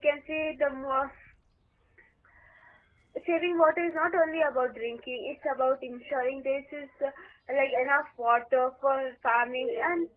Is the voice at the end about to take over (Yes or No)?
No